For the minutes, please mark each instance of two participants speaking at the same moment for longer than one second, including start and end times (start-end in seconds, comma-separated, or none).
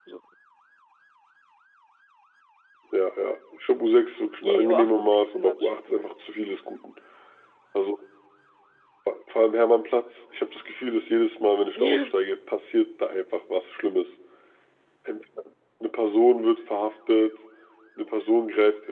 4.4-6.4